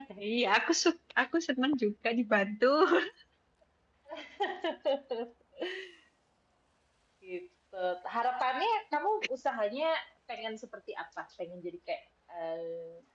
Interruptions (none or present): none